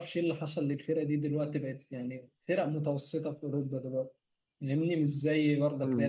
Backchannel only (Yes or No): No